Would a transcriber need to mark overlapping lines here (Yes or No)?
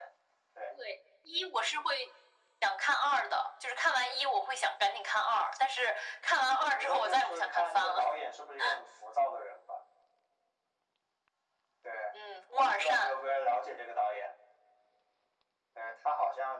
Yes